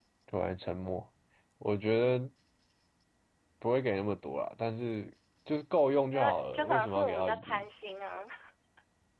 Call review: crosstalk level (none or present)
present